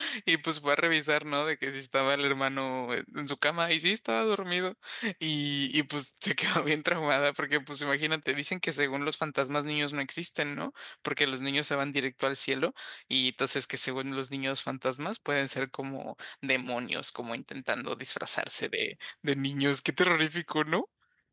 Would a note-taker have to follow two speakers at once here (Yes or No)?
No